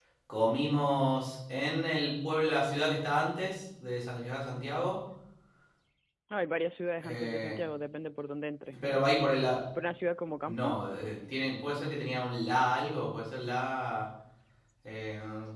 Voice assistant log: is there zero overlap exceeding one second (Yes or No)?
Yes